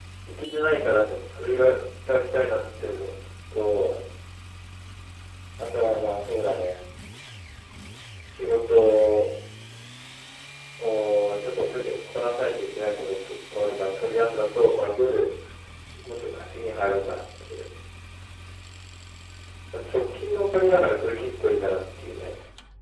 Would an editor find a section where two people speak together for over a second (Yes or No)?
No